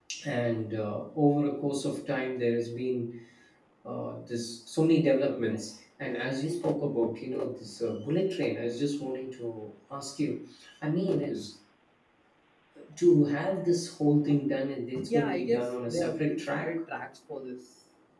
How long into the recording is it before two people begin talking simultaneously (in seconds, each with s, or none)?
15.0 s